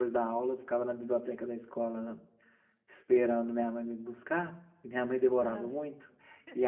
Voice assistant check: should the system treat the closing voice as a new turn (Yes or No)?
No